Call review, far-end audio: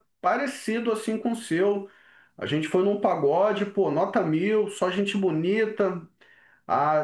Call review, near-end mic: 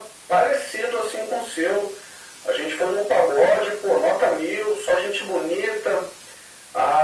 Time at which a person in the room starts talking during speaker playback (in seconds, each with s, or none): none